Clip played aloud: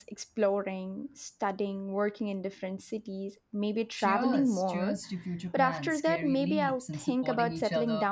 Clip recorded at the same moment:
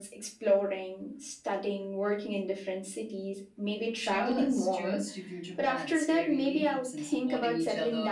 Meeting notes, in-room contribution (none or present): none